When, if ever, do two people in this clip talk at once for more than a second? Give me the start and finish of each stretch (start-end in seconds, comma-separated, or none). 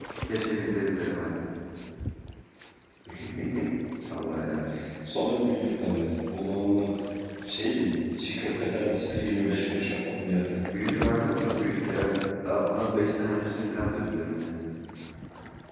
none